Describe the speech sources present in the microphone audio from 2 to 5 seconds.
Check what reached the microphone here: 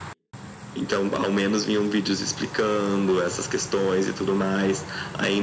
echo only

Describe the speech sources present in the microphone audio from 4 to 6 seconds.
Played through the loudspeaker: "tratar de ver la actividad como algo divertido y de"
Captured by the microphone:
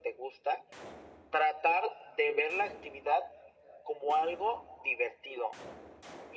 echo only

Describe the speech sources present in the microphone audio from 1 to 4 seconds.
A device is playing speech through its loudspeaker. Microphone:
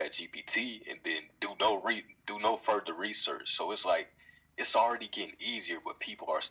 echo only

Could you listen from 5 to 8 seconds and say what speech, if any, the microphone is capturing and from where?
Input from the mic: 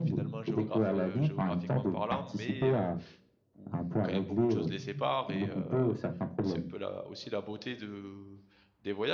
both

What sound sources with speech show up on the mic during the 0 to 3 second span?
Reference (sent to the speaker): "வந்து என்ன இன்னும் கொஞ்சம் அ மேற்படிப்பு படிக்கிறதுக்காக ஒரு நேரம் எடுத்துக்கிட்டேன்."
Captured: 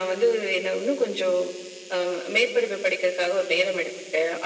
echo only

